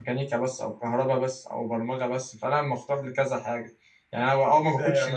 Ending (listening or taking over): taking over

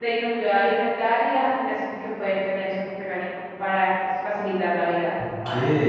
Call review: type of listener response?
taking over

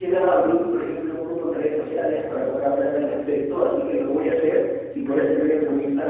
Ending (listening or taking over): listening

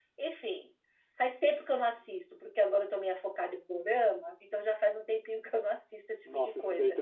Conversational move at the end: taking over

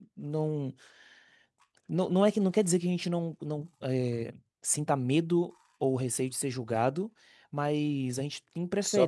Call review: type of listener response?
listening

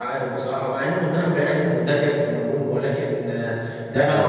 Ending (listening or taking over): listening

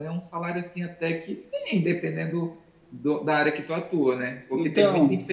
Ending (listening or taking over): listening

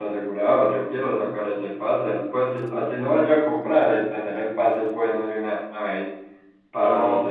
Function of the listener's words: listening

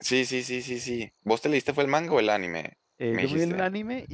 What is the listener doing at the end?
taking over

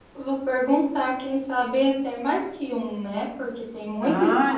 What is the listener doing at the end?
taking over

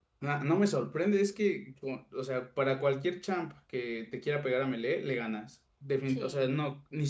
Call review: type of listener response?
listening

